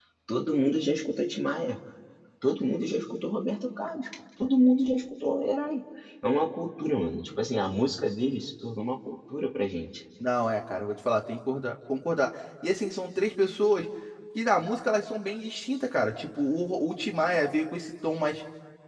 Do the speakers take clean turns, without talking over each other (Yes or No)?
Yes